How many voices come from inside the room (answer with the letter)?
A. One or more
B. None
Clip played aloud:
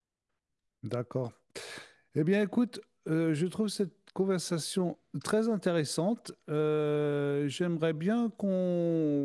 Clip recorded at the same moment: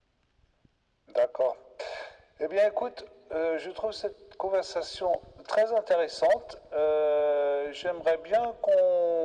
B